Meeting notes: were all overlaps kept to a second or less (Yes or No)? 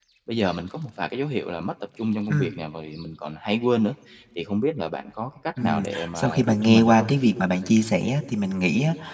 No